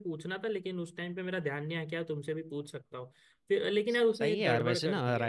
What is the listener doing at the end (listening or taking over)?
taking over